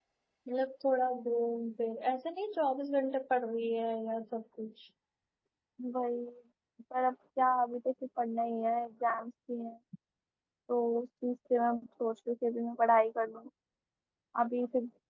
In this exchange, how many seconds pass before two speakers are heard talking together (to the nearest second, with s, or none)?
none